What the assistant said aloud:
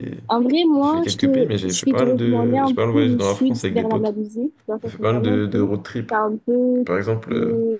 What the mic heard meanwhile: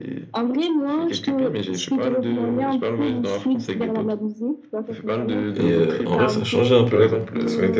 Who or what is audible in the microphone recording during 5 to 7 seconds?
both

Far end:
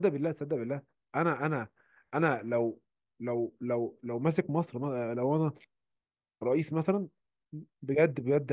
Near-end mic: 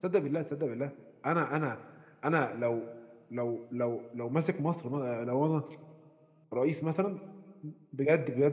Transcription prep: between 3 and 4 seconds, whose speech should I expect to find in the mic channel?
echo only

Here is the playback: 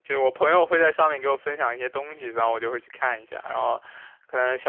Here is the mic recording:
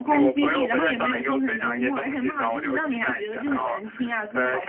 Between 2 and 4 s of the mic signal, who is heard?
both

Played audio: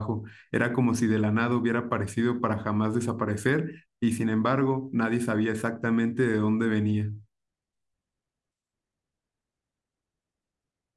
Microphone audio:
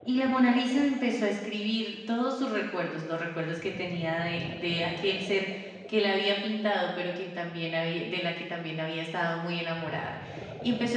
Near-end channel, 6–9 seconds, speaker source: user only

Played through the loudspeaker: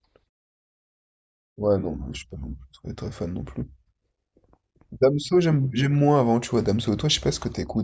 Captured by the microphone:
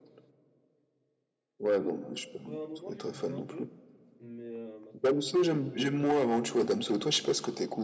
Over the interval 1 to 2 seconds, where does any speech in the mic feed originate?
echo only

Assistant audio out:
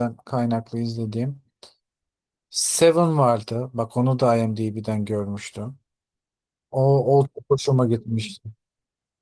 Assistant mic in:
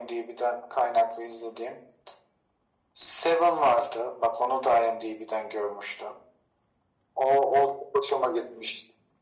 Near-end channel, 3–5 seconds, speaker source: echo only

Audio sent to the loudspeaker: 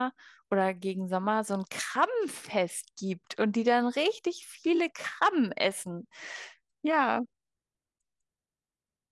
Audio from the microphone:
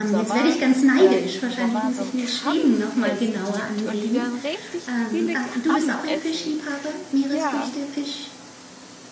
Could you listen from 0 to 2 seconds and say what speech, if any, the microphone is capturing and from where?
both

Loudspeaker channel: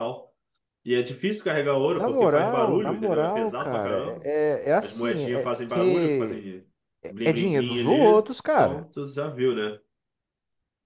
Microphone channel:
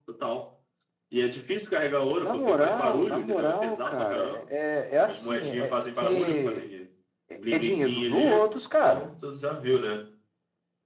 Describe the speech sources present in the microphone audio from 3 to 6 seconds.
echo only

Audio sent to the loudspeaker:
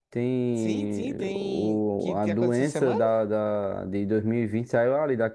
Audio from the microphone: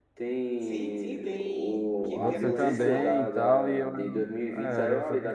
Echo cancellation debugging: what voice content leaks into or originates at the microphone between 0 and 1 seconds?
echo only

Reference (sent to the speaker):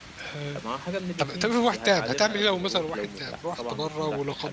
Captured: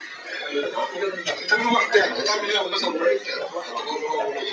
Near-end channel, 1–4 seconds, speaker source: echo only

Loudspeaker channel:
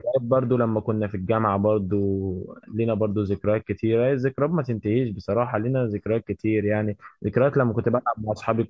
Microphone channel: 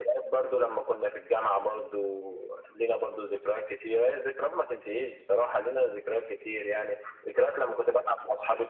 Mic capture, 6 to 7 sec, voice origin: echo only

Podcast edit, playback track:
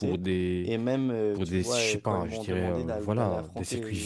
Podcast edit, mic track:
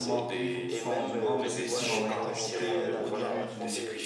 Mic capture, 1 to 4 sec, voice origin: both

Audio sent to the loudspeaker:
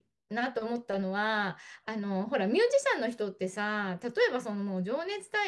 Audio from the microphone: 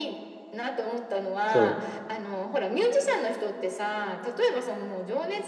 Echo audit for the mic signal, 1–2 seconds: both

